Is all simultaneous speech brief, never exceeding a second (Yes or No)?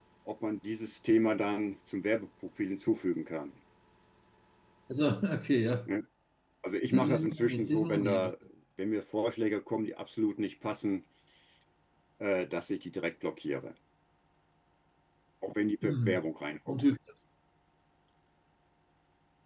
No